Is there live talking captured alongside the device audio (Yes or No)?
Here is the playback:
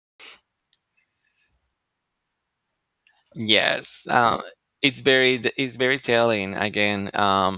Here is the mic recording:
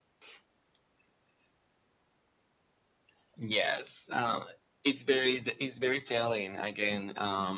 No